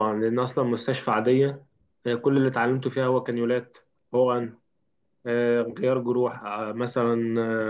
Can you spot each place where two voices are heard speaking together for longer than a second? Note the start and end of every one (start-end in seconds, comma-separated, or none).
none